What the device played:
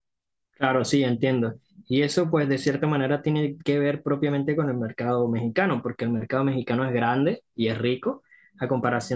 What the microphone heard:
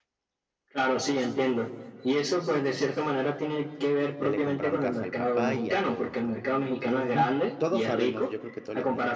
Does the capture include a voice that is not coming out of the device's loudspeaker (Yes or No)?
Yes